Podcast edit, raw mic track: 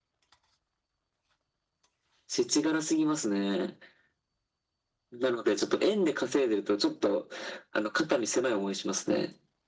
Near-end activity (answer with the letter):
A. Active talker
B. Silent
B